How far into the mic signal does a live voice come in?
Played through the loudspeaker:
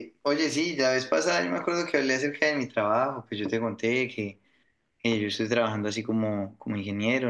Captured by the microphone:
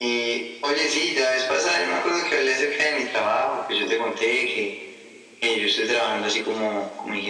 none

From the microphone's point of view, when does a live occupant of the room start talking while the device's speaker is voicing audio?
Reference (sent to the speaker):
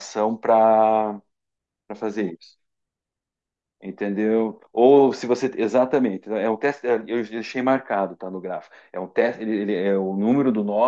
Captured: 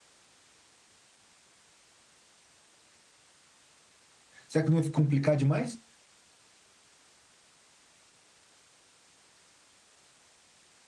4 s

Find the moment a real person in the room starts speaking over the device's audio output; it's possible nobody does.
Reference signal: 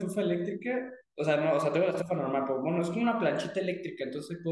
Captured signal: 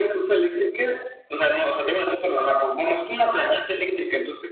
none

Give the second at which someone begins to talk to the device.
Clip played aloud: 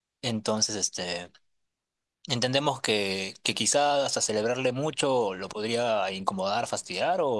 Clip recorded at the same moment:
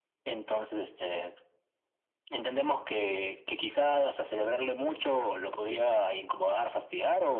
none

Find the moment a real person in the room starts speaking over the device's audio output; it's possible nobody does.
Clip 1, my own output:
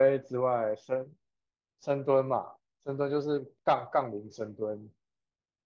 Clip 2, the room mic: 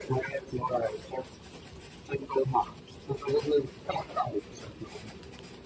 none

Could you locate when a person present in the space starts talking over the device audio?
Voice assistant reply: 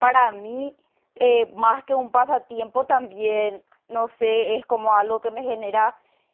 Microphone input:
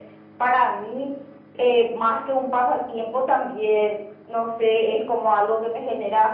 none

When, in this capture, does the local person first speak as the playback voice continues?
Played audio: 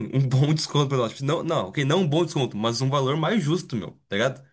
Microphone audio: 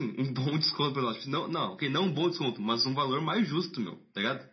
none

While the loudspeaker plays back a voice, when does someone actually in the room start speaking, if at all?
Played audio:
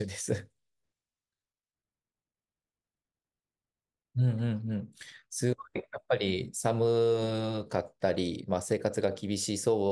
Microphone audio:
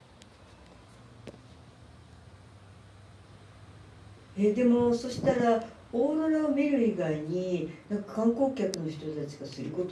4 s

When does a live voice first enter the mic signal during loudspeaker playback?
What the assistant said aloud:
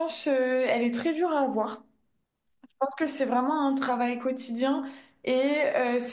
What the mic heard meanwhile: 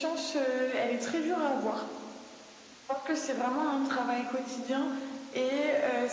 none

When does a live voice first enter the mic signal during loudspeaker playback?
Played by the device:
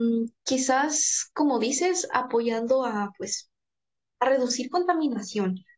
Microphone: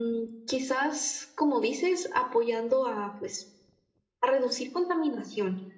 none

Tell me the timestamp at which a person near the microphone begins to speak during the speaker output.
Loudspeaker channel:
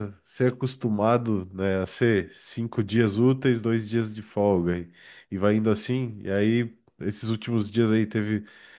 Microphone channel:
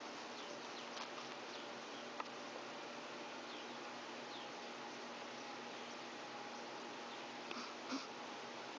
none

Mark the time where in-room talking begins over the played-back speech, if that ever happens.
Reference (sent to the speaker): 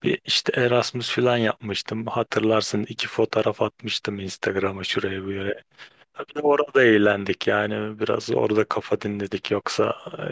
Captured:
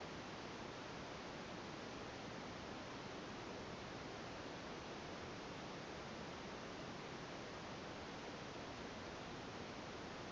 none

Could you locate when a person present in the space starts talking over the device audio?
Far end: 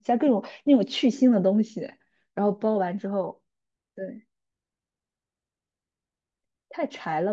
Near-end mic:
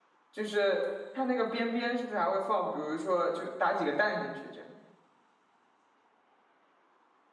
0 s

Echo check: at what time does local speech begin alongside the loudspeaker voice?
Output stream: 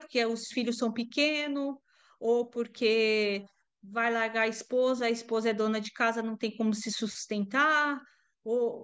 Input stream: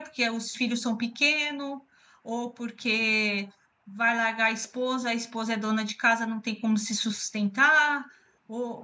none

